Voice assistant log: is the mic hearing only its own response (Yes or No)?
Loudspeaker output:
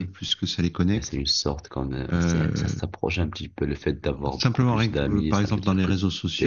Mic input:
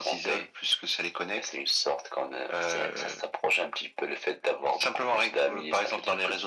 Yes